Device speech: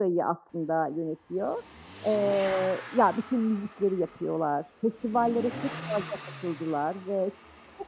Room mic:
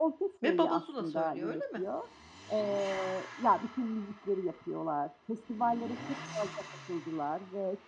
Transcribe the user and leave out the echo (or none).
Ve Baba Zula söylüyor, öyle mi?